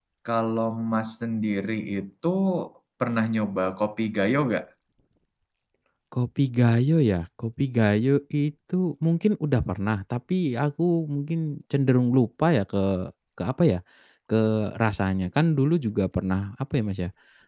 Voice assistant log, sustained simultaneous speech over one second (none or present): none